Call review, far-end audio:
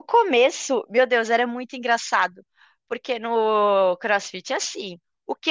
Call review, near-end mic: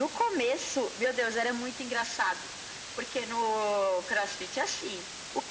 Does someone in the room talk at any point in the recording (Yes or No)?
No